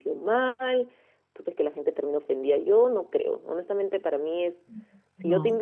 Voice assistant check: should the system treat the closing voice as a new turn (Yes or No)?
No